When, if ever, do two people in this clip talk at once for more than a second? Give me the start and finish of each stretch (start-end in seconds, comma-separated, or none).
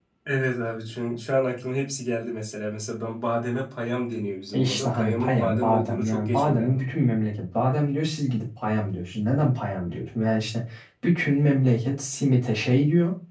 4.5-6.9